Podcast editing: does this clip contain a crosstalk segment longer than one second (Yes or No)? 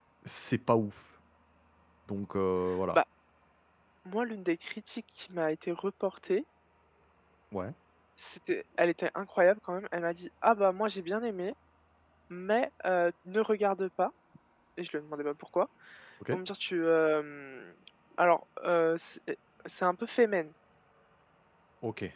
No